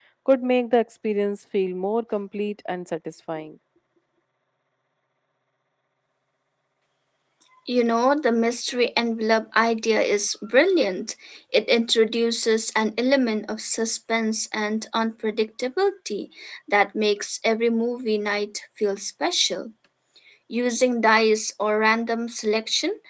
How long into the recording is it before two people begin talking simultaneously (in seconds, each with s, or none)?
none